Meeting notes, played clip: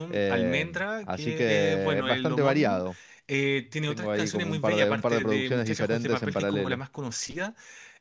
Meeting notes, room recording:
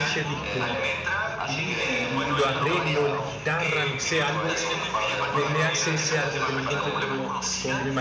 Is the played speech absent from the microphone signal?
No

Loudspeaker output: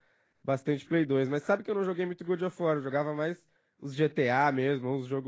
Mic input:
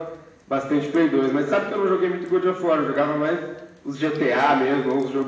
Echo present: Yes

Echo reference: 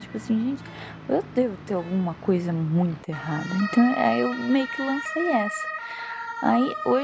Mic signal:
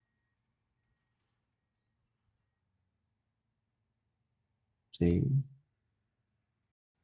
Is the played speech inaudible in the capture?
Yes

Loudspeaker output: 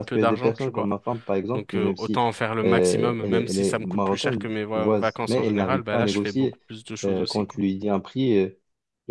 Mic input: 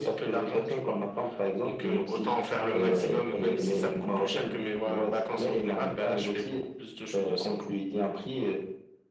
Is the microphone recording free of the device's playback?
No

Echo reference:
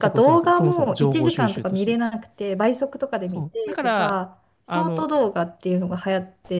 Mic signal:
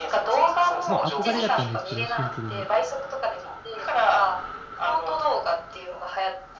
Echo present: Yes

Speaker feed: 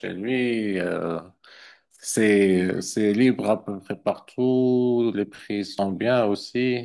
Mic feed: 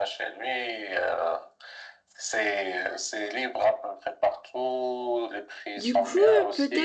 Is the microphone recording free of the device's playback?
No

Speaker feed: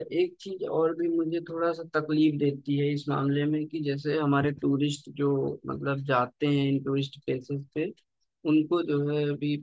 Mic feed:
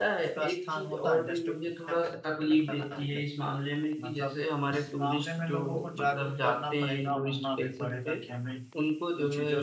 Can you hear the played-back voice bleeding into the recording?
Yes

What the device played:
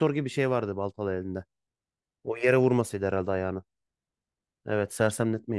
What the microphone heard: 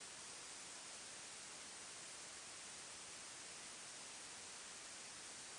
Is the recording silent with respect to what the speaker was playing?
Yes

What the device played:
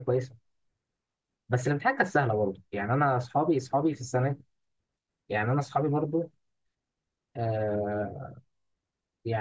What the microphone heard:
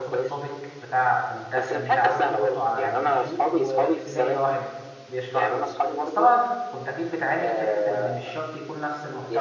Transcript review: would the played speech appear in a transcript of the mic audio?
Yes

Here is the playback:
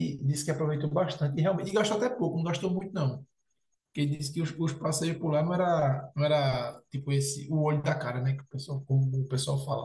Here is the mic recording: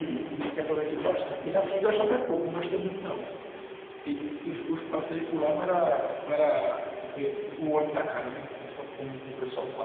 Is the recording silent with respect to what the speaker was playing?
No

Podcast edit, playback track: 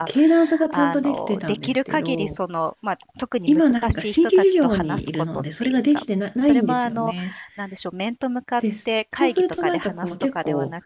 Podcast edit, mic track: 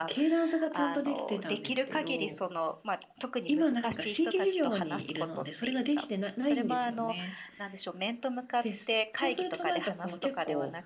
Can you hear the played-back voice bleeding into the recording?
Yes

